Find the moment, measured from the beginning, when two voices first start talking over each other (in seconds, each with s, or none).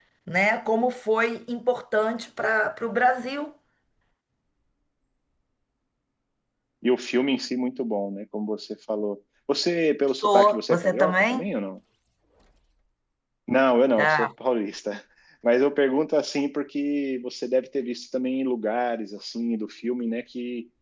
10.2 s